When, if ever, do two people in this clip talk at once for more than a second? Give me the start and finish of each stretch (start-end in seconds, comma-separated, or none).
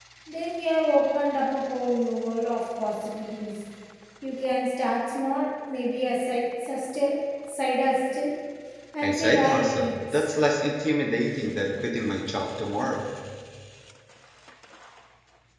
9.0-10.3